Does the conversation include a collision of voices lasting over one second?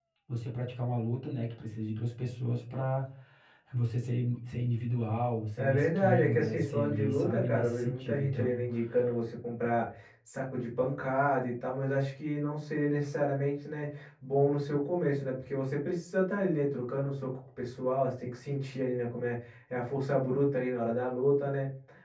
Yes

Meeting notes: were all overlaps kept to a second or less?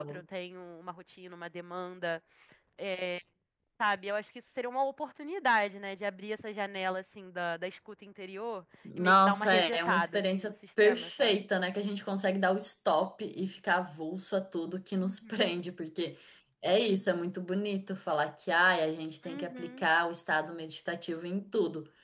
No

